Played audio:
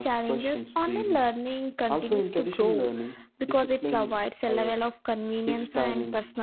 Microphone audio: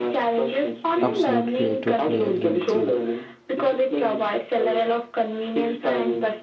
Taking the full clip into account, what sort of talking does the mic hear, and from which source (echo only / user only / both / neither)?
both